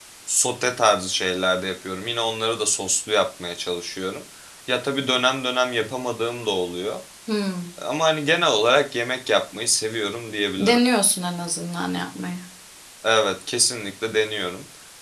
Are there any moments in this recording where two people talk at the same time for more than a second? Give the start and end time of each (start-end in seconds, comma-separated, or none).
none